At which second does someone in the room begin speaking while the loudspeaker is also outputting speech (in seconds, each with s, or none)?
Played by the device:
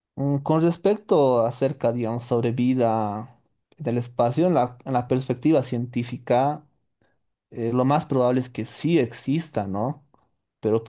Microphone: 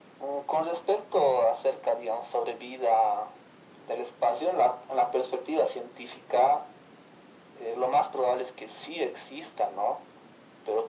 none